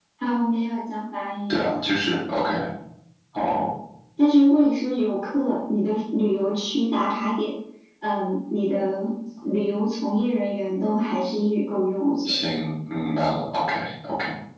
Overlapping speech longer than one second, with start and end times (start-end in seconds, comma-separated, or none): none